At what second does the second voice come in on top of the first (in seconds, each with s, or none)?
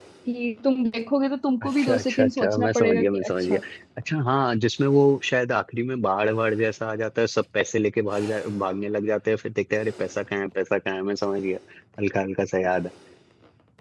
1.6 s